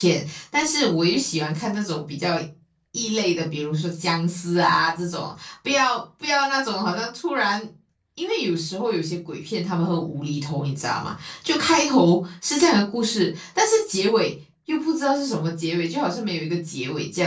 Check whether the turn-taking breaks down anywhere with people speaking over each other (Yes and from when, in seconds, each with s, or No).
No